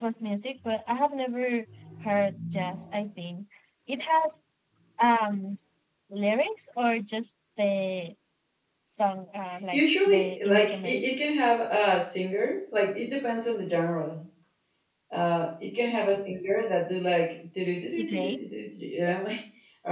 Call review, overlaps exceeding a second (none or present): present